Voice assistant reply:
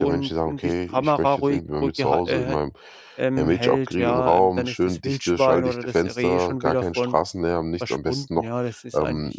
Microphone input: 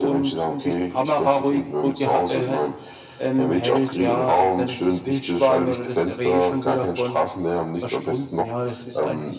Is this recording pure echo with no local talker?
Yes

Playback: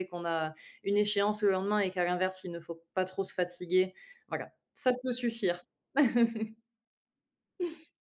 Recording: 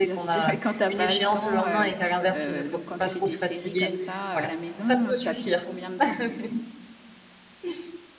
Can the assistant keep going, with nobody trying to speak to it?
No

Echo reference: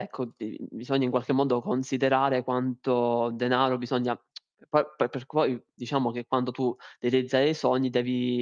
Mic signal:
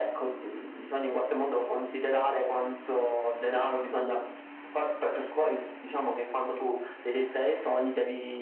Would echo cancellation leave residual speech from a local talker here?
No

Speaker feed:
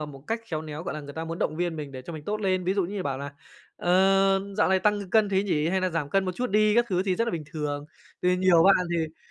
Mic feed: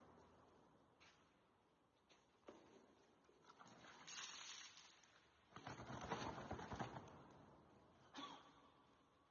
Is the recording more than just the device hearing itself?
No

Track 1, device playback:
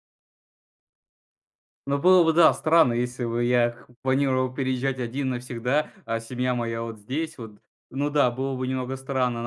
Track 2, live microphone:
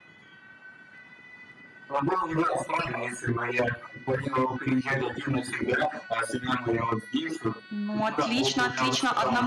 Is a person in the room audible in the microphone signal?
Yes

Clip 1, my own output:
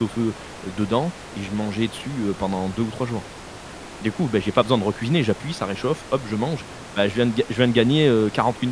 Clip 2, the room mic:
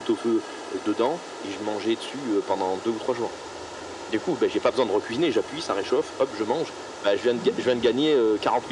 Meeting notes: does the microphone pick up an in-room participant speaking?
Yes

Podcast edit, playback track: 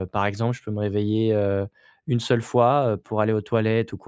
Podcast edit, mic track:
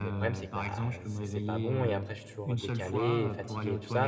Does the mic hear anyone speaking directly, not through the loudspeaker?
Yes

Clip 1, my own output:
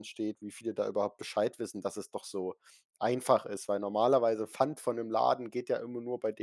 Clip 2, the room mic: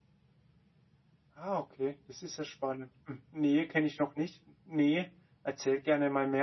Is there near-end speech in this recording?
Yes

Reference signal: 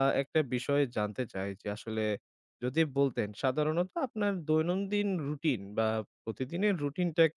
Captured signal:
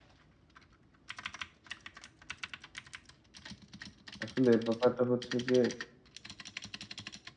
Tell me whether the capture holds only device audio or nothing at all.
No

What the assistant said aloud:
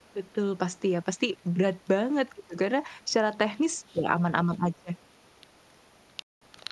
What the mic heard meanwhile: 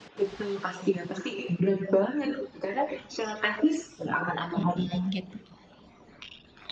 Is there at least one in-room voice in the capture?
Yes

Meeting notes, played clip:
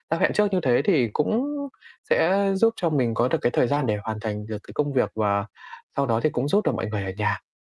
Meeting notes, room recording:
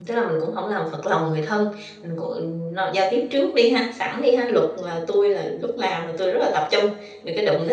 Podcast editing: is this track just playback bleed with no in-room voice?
No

